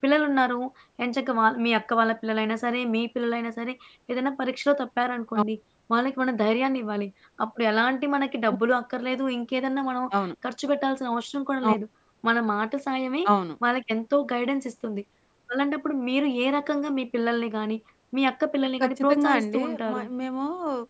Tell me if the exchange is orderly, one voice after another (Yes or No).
No